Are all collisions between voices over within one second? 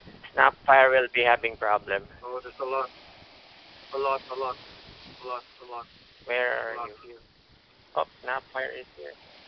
Yes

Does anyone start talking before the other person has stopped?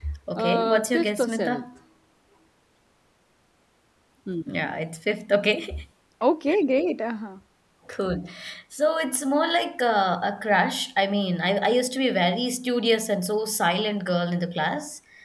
Yes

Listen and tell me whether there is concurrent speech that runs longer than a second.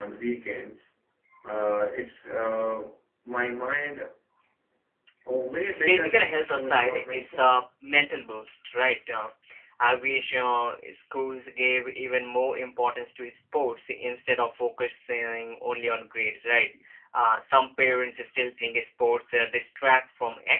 Yes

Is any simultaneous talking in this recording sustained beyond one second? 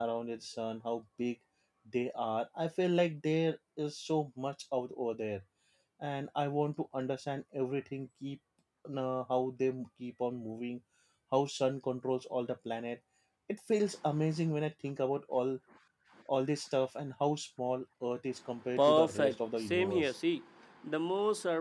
Yes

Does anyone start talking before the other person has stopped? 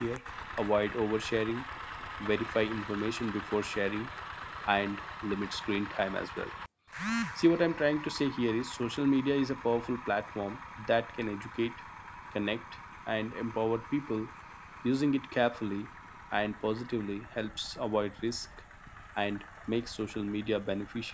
No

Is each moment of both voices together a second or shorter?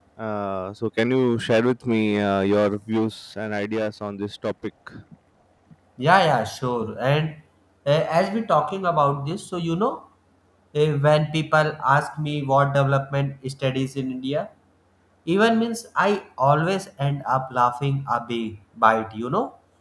Yes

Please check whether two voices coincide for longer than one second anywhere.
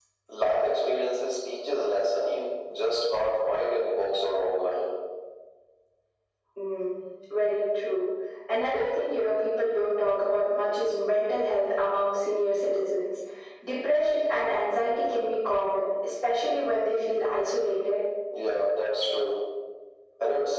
No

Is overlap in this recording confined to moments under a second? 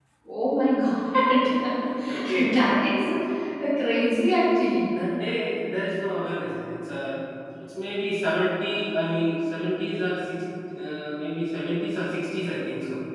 Yes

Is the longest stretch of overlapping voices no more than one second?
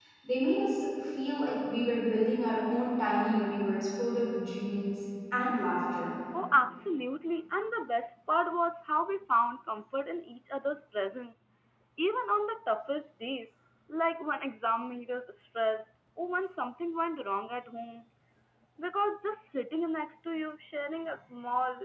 Yes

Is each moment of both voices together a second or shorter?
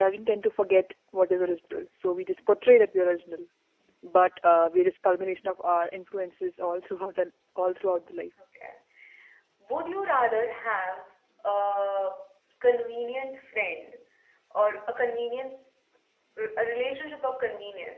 Yes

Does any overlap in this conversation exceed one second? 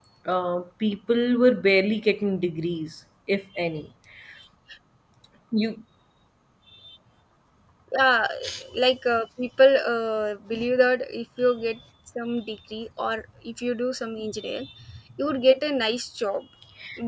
No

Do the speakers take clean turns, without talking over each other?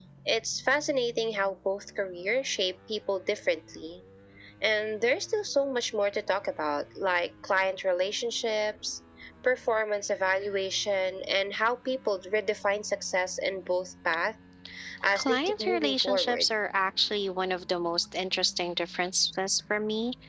No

